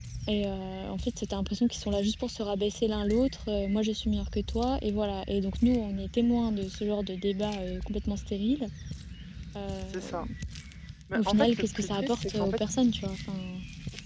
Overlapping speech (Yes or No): Yes